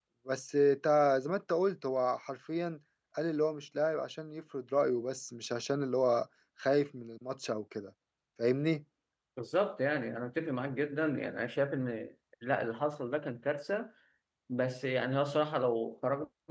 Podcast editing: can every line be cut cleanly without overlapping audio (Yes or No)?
Yes